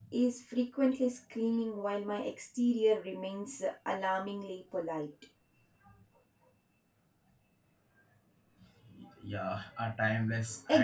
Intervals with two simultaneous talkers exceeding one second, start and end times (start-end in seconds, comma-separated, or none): none